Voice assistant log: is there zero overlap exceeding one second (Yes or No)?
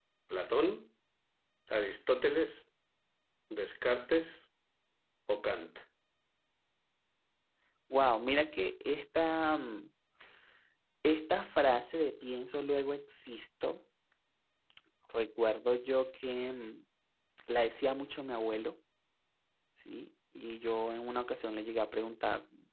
Yes